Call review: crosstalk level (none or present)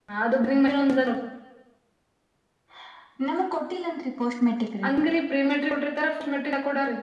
none